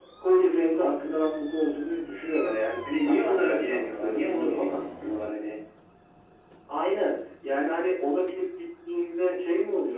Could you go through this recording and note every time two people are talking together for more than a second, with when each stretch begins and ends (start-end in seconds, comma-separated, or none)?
3.0-4.8